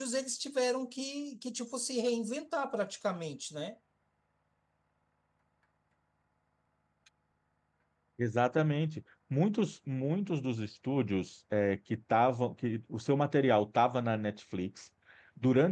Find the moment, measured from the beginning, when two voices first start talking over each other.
none

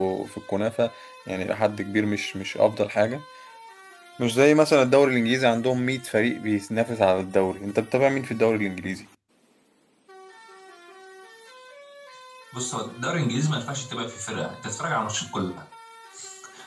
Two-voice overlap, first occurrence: none

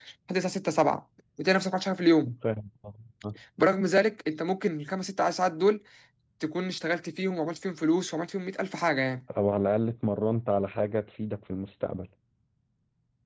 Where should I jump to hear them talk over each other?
none

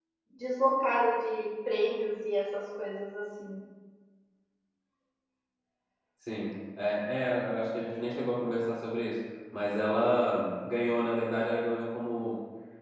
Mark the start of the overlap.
none

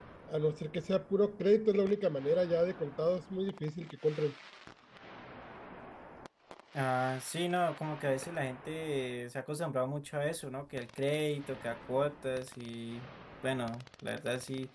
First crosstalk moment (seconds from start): none

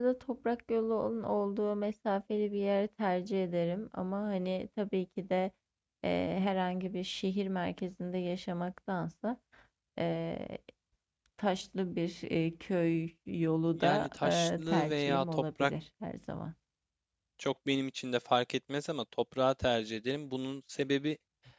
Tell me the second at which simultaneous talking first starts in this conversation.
13.8 s

